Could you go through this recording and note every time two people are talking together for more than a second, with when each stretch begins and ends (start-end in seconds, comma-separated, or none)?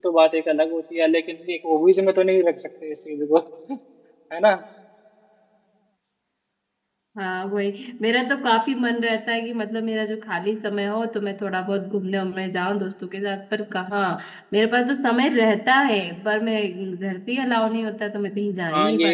none